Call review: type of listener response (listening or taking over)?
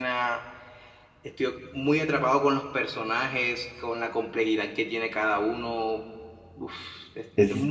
taking over